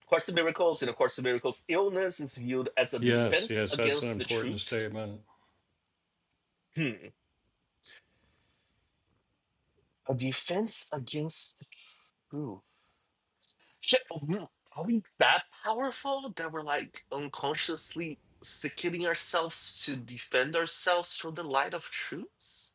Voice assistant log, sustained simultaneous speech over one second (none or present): present